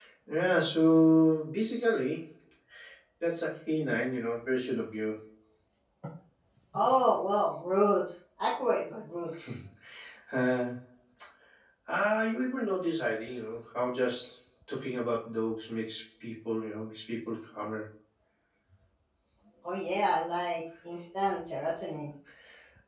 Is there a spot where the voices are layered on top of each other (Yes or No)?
No